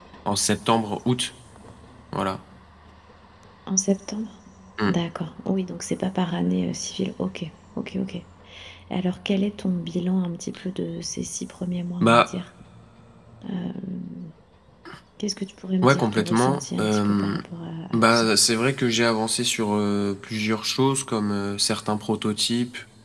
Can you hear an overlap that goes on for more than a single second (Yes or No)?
Yes